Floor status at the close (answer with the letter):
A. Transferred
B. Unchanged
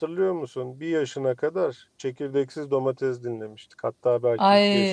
A